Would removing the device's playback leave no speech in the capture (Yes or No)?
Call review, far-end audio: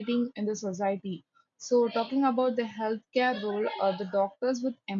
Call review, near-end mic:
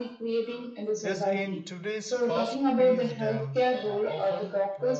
No